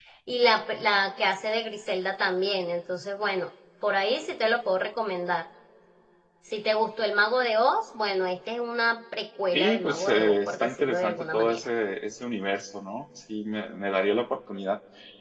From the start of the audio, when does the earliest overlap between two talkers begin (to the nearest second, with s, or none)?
10 s